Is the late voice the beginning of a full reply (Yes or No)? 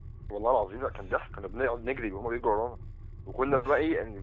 No